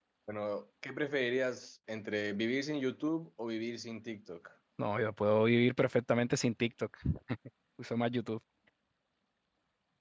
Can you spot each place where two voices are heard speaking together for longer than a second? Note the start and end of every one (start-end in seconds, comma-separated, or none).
none